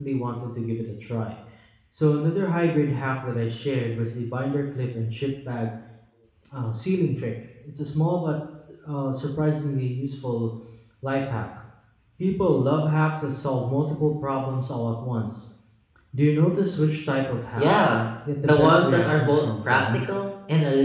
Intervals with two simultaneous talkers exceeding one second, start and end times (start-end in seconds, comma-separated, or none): 18.4-20.0